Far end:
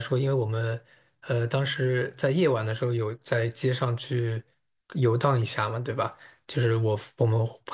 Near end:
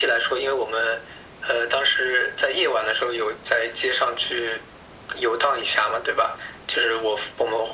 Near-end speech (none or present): none